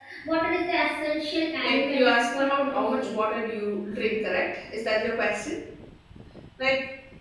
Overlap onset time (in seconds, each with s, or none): 1.6 s